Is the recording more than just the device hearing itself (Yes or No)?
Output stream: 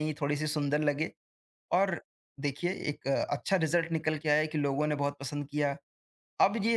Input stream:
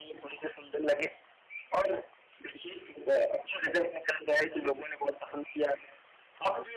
No